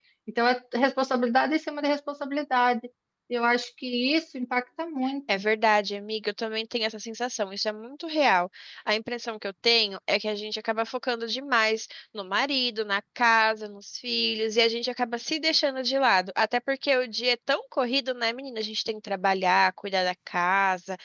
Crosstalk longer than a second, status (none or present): none